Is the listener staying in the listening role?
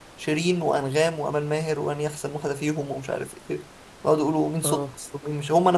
Yes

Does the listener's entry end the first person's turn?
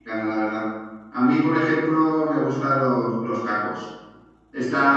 No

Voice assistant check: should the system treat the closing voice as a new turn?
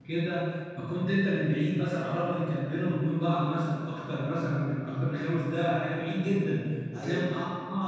No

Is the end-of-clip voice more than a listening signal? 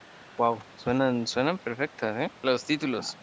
Yes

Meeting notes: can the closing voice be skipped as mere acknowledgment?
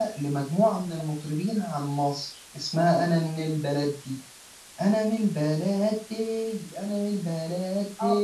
No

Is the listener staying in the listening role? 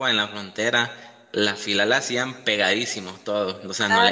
Yes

